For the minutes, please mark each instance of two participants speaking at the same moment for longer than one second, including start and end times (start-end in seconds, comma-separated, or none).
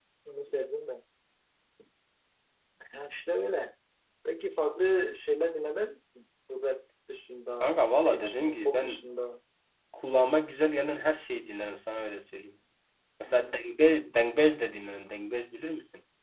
7.6-9.0